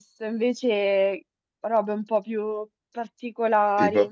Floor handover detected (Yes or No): No